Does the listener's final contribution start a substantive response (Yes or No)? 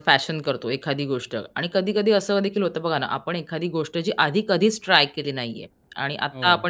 No